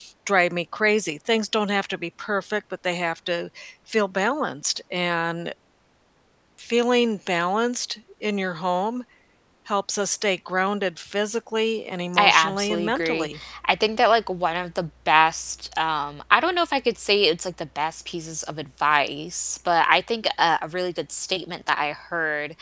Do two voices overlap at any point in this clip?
Yes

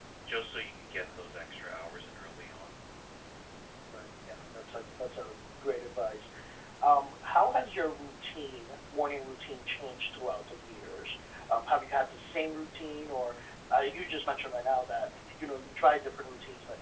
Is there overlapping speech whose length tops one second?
No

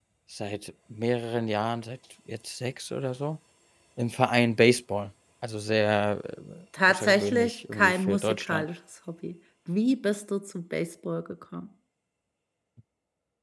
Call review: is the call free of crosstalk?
No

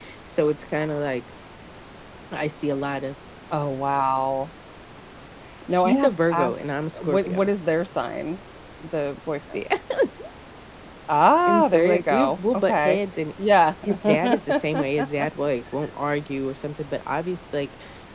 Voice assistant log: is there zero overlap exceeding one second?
No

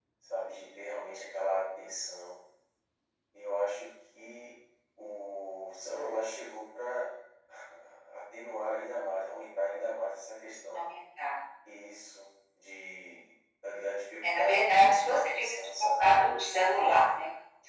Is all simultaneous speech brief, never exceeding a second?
No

